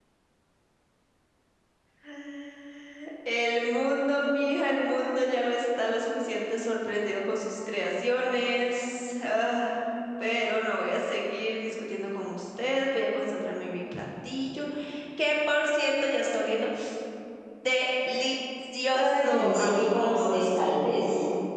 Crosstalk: present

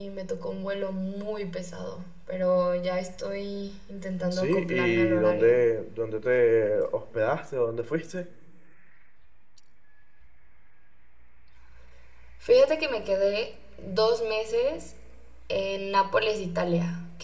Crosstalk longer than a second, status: present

